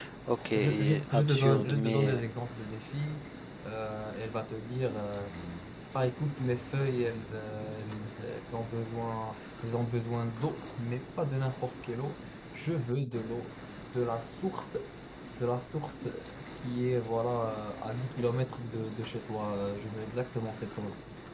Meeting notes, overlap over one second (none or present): present